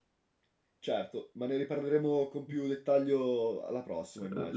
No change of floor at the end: No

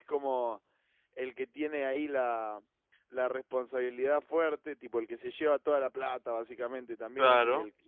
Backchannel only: Yes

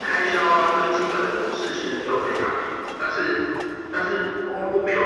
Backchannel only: Yes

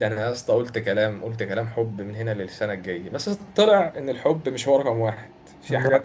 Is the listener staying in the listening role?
Yes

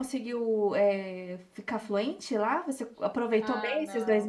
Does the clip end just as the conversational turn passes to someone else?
Yes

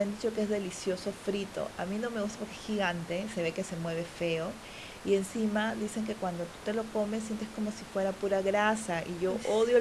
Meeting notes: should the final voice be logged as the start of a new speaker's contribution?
No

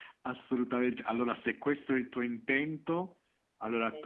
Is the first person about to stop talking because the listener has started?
No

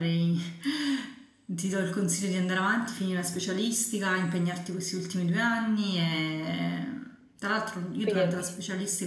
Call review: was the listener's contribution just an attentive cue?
Yes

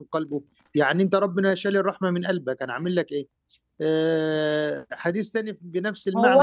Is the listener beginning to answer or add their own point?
Yes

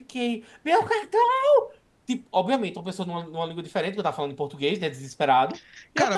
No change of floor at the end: No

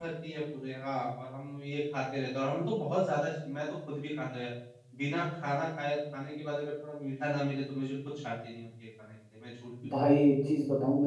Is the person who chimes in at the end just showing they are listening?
No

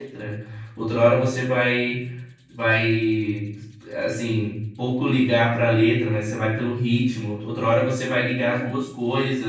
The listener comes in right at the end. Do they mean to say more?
No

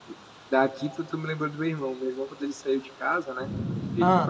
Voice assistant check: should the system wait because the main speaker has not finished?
Yes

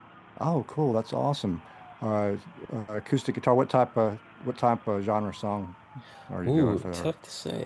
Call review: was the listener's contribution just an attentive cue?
No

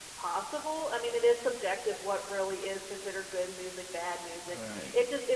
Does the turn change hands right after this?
No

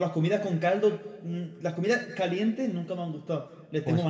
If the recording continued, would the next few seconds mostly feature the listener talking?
Yes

